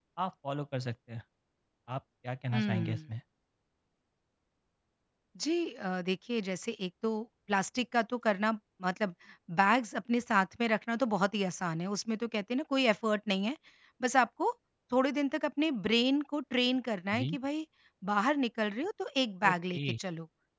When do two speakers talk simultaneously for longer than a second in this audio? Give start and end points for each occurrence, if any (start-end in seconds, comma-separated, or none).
none